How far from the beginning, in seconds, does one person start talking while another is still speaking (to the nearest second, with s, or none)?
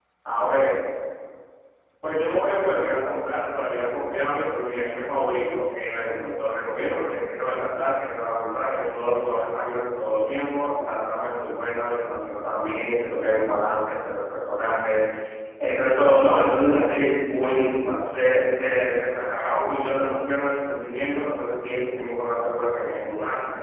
none